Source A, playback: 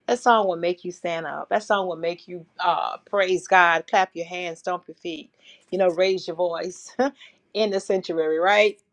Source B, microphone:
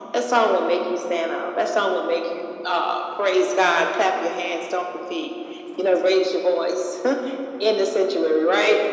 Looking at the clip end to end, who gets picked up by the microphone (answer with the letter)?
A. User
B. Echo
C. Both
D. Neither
B